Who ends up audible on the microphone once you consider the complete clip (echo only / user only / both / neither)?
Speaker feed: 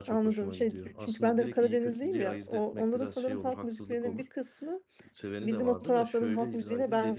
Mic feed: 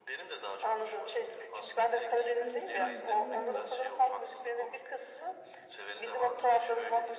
both